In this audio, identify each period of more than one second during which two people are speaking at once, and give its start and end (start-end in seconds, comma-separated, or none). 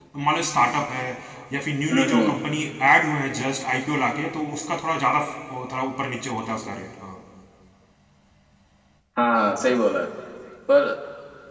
none